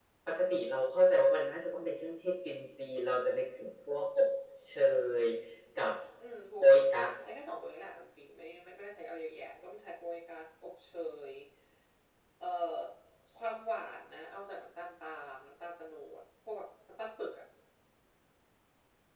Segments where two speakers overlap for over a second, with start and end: none

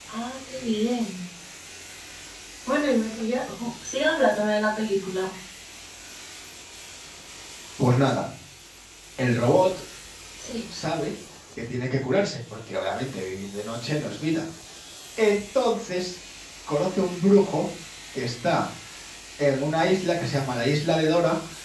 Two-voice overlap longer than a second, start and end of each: none

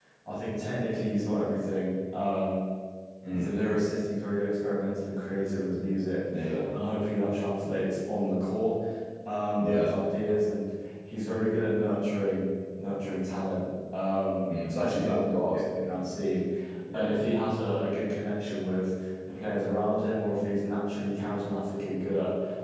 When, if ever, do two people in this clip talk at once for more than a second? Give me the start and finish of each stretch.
14.6-16.0

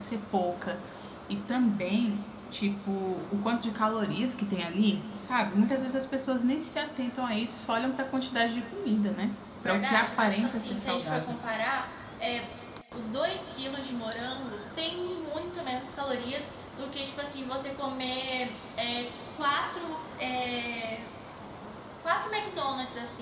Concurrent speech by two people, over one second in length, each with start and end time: 9.6-11.4

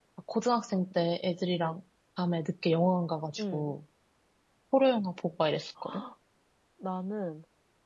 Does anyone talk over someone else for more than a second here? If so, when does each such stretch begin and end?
none

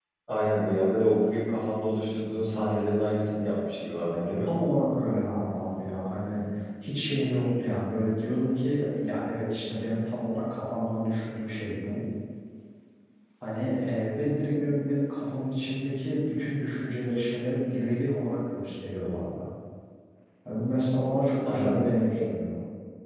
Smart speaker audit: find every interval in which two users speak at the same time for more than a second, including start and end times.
none

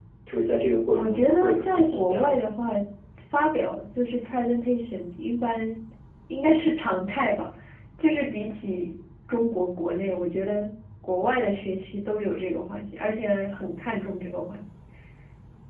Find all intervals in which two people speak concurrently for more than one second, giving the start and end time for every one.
0.9-2.4

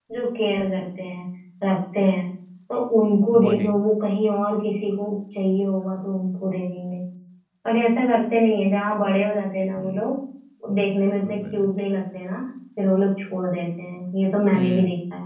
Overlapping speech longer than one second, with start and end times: none

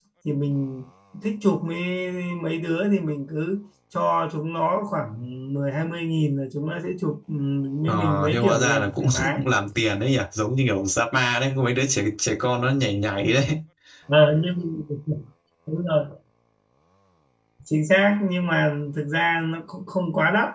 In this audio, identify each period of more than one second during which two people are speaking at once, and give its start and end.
7.9-9.4

